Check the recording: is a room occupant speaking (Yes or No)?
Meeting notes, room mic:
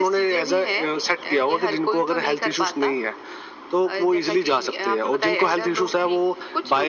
No